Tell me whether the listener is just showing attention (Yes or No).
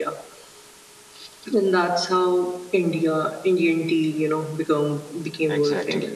No